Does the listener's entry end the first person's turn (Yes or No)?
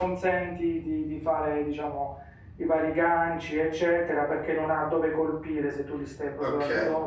Yes